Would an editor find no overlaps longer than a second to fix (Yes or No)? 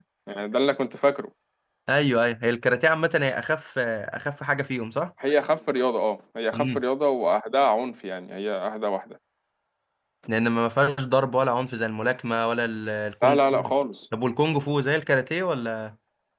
Yes